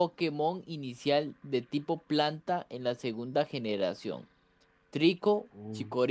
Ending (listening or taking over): listening